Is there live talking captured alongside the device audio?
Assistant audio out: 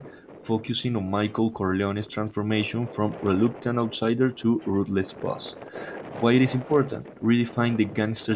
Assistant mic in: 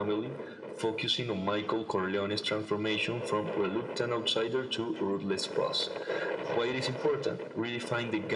No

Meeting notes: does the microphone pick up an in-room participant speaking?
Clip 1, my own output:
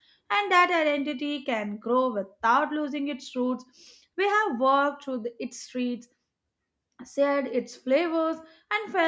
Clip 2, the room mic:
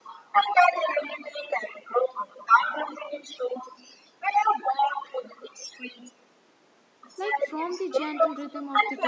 Yes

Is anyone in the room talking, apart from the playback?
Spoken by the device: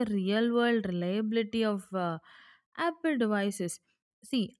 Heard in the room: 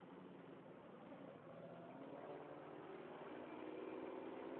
No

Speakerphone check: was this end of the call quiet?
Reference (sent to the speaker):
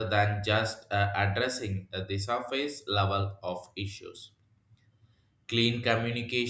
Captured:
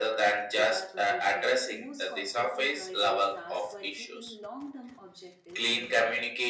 No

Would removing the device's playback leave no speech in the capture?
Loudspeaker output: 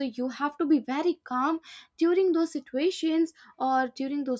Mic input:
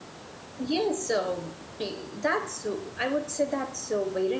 No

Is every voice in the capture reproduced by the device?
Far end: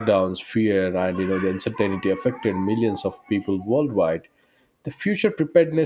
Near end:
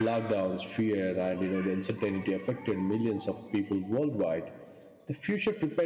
Yes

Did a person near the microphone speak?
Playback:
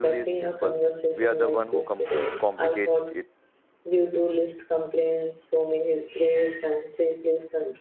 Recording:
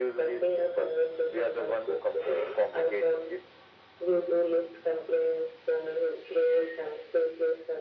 No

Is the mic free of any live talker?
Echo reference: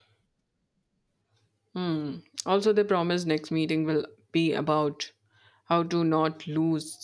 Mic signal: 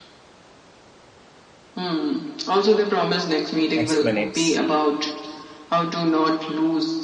No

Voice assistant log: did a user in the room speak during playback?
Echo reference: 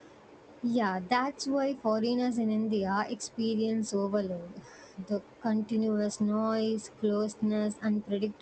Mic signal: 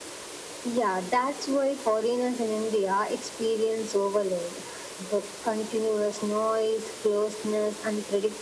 No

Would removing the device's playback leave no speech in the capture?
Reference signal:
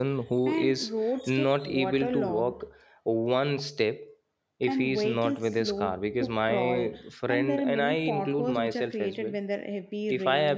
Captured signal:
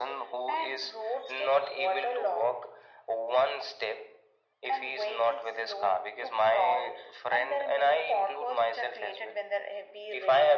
Yes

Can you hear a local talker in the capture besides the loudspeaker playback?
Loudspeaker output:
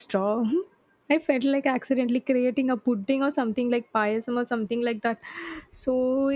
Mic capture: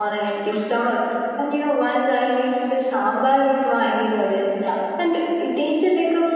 Yes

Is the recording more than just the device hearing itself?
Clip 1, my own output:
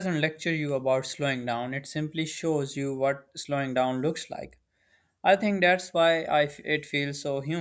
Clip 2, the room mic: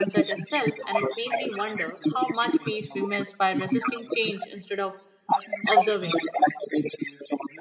Yes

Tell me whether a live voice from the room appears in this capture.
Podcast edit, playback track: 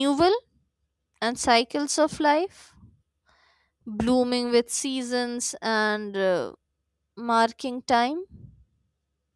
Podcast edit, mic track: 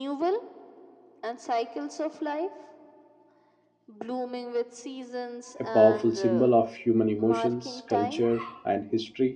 Yes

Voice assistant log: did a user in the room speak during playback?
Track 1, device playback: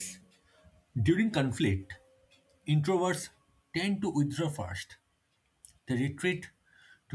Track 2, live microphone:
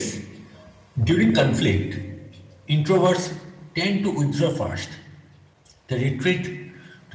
No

